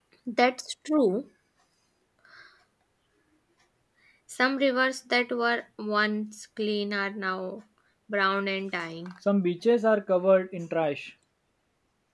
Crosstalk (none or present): none